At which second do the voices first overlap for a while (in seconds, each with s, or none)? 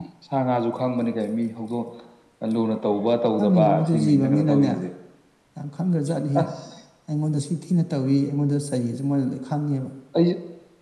3.4 s